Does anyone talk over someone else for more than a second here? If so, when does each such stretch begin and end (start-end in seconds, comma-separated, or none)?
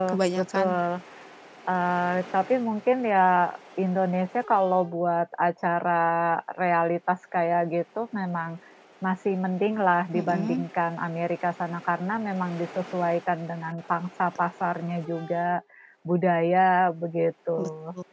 none